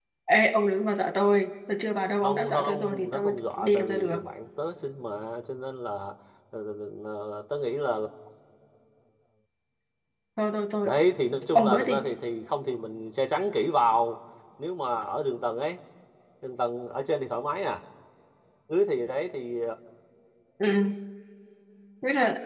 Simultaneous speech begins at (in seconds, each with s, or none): 2.2 s